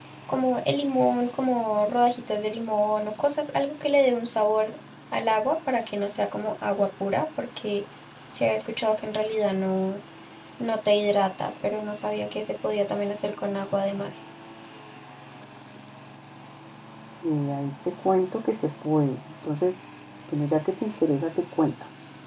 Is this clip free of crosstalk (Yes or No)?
Yes